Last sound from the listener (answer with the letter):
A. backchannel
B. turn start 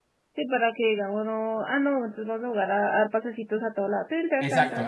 B